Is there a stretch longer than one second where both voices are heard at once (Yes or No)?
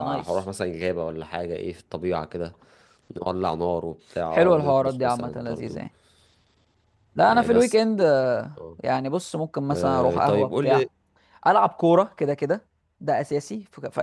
Yes